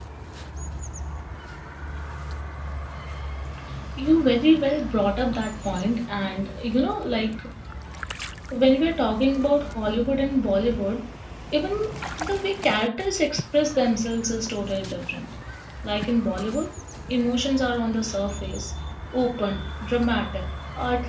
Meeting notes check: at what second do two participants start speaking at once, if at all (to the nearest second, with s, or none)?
none